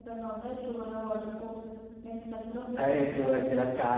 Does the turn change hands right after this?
Yes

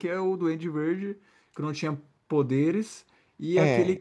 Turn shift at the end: No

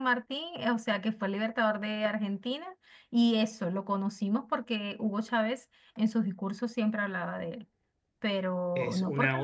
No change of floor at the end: No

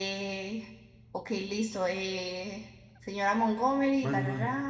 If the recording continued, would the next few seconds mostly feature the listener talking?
No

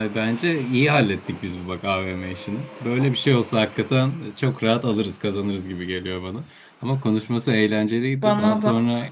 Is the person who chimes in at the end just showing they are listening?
Yes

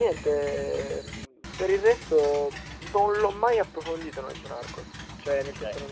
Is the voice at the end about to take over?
No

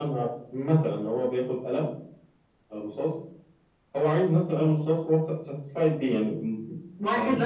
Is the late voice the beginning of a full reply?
Yes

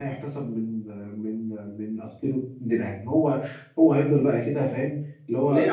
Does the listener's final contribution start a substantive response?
Yes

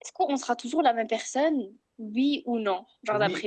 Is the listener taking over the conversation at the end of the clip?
Yes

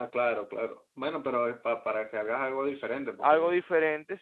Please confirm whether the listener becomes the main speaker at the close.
Yes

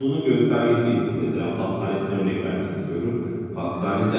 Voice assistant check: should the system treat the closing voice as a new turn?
No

